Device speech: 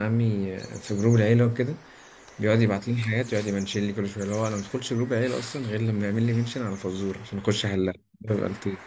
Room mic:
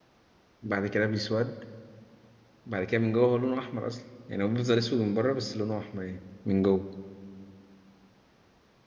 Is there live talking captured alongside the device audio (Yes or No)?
Yes